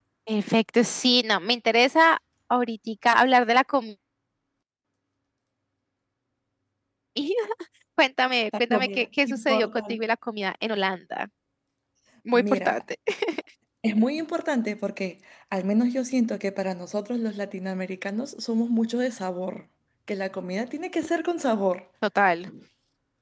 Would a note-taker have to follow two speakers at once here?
Yes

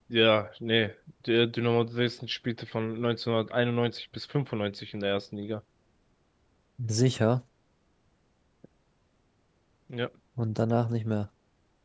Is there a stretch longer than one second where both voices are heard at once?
No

